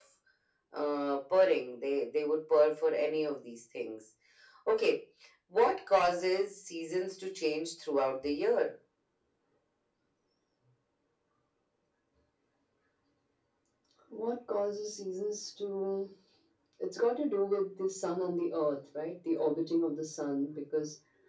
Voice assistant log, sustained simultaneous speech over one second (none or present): none